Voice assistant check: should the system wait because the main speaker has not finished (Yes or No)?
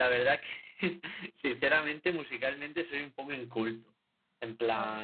Yes